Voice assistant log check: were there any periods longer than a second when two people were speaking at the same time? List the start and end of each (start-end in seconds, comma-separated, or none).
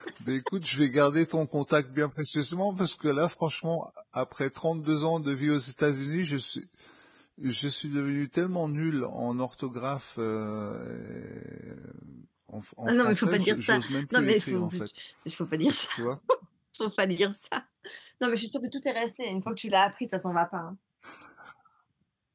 12.9-14.7